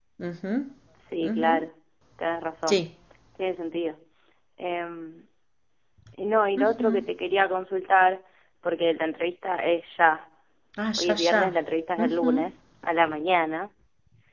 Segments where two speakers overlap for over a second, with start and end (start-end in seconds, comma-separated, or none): none